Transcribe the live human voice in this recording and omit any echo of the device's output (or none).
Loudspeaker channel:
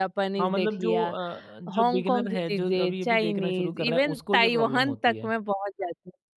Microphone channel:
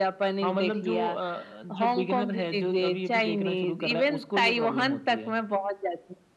none